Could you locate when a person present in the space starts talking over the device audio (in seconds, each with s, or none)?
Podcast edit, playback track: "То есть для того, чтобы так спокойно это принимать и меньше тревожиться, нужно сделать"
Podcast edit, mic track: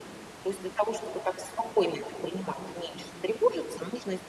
none